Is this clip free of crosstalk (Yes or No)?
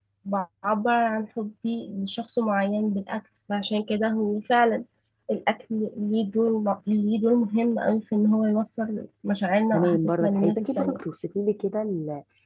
No